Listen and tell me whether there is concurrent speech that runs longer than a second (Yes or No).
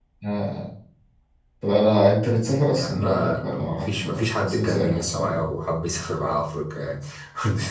Yes